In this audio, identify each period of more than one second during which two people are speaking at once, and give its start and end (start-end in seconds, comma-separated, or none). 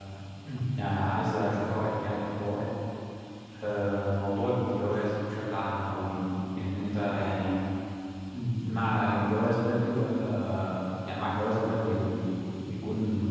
none